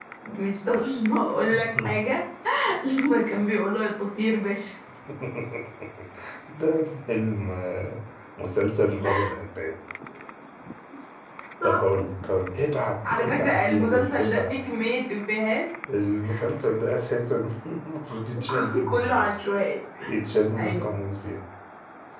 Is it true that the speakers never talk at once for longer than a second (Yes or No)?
No